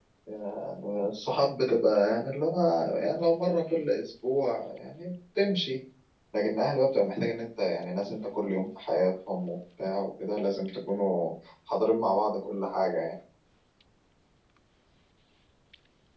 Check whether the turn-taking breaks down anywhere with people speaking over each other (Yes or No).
No